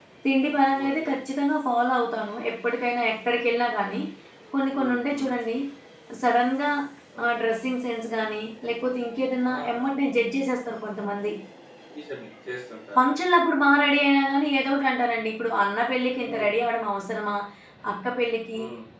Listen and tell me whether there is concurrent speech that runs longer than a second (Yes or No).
No